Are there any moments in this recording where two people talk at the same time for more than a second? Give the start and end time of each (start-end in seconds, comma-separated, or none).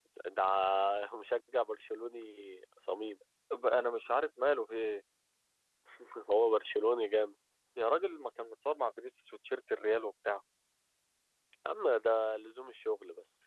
none